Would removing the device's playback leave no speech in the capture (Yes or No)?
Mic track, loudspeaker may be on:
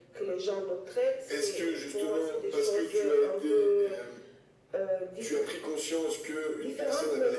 Yes